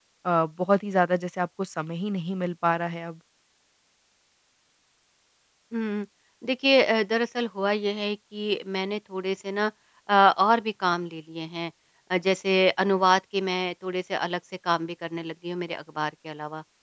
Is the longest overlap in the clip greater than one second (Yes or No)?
No